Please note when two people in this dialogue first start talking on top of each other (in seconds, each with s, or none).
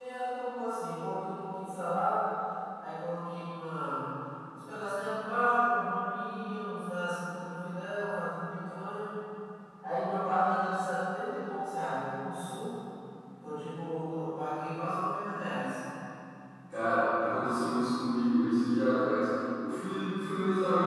none